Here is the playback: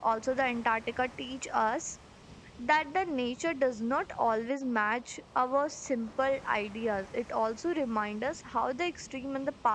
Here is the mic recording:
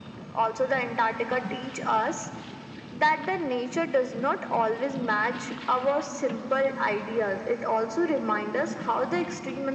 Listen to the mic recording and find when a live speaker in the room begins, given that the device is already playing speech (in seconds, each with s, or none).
none